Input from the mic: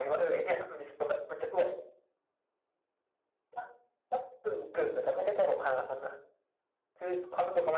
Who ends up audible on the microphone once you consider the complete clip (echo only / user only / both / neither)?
echo only